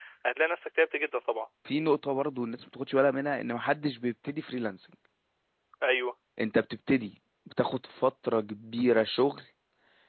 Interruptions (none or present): none